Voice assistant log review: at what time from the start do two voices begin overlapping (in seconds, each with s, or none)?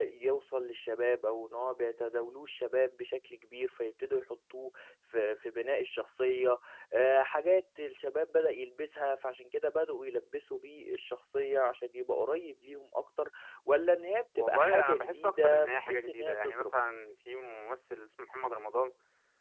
14.4 s